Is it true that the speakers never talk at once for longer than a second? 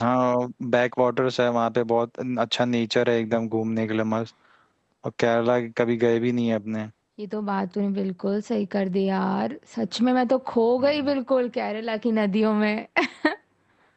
Yes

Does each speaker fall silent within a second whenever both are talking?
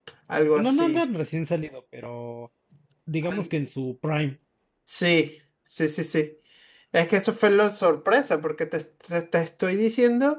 Yes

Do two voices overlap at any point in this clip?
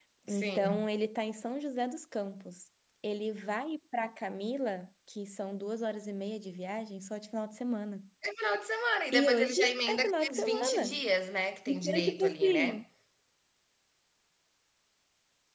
Yes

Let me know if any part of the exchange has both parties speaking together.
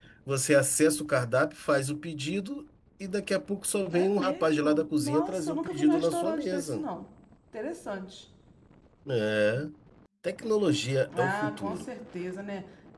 Yes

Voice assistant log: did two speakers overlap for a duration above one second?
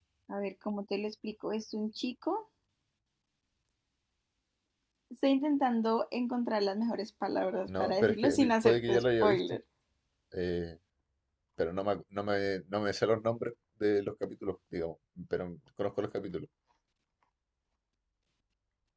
Yes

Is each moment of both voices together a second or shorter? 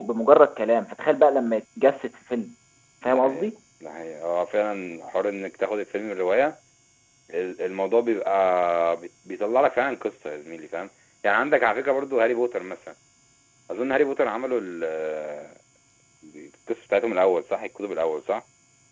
Yes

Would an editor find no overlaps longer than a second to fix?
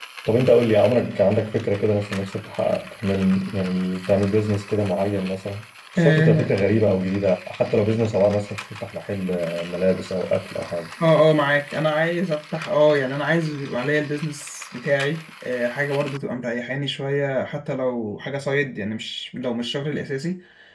Yes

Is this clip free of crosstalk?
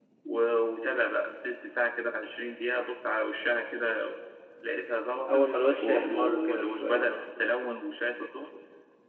No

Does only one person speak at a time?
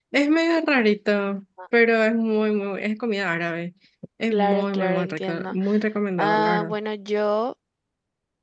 No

